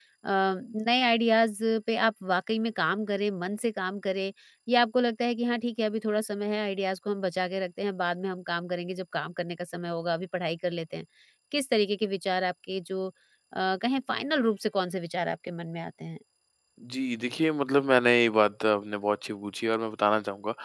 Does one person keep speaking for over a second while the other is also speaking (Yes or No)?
No